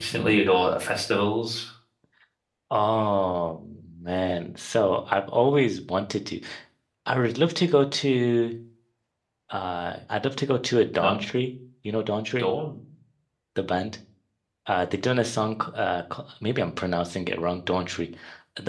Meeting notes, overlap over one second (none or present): none